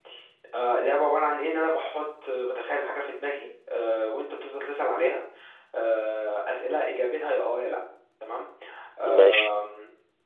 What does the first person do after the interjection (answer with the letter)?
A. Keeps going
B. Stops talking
A